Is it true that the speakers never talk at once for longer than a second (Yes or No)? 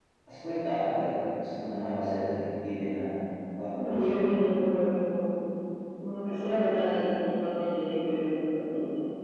Yes